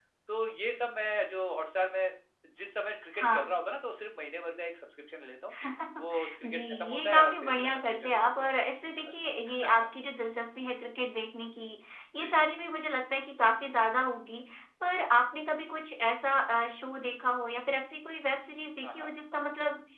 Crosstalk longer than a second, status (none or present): present